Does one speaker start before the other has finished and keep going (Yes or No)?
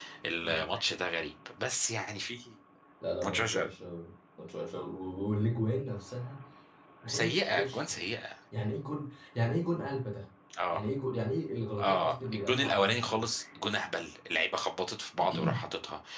Yes